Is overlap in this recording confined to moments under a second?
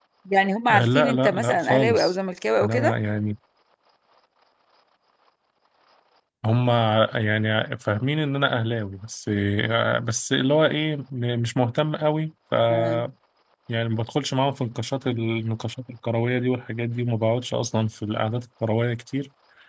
No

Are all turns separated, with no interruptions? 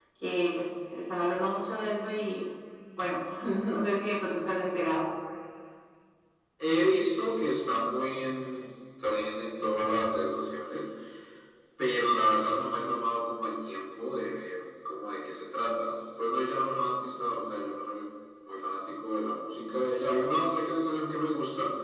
Yes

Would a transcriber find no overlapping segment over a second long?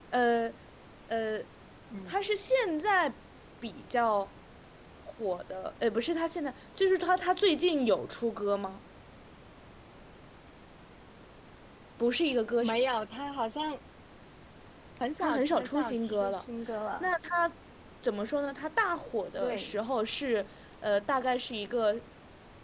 No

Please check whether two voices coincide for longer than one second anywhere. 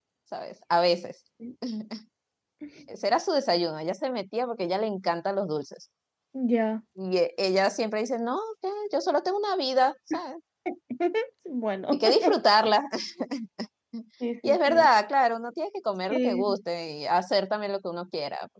No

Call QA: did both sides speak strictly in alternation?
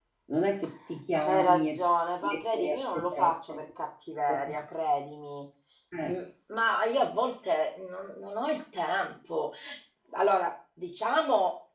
No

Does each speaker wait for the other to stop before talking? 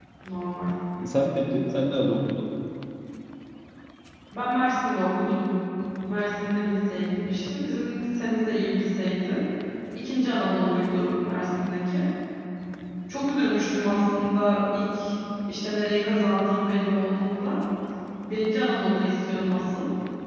Yes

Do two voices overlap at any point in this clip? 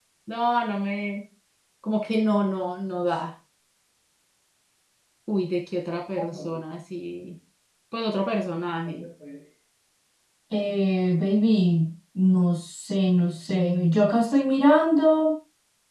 No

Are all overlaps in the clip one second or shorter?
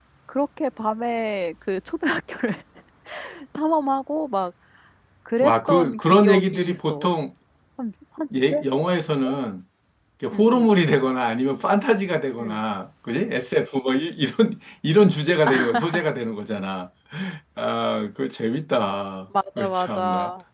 No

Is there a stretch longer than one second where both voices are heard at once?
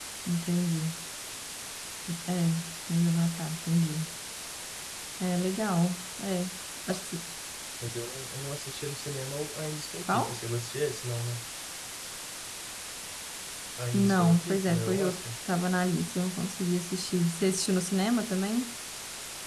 Yes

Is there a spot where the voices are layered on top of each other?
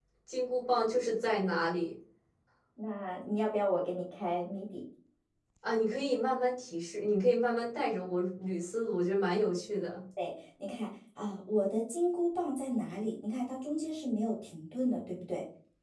No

